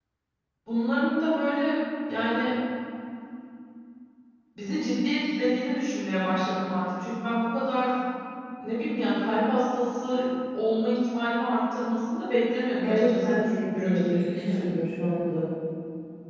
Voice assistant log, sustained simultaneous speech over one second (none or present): present